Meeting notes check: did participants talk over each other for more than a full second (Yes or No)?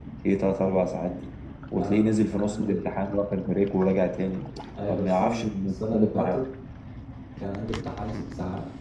Yes